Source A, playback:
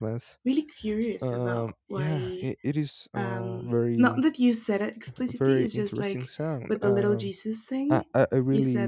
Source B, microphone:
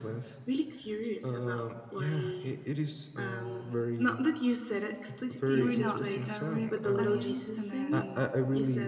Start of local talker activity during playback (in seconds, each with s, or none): 5.5 s